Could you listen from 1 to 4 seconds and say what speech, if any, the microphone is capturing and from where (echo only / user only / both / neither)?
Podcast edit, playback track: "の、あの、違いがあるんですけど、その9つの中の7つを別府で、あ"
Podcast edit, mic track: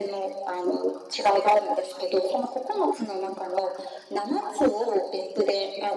echo only